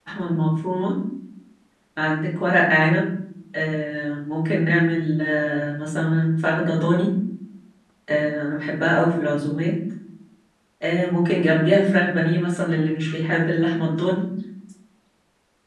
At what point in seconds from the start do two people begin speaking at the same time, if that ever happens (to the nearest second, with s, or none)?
none